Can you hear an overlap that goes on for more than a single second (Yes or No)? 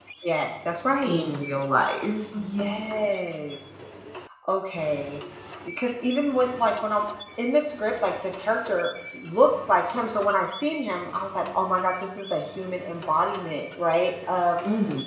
No